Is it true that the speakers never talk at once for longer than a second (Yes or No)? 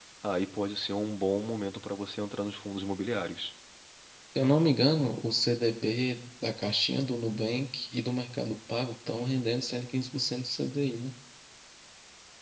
Yes